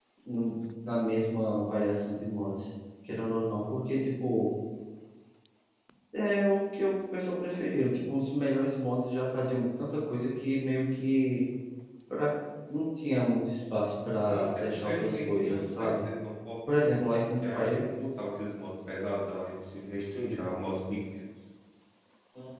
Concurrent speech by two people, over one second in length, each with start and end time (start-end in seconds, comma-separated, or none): 14.3-16.0